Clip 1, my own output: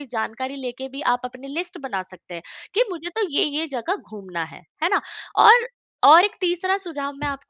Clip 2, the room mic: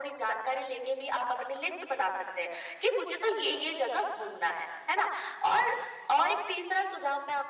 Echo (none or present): present